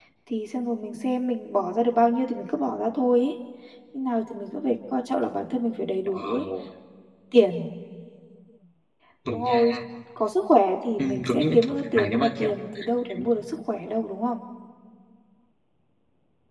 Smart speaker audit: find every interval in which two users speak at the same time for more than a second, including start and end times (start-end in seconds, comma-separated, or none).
11.0-12.5